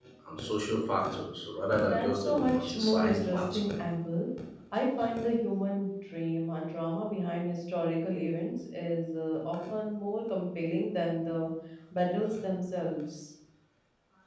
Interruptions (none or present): present